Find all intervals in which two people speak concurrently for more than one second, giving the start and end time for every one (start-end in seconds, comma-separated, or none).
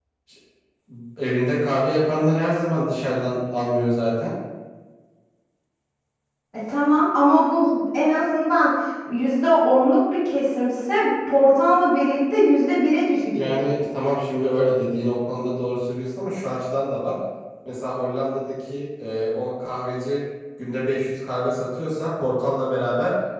none